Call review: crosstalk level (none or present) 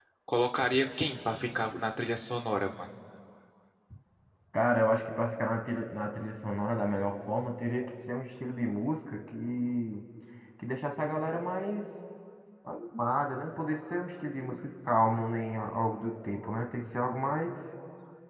none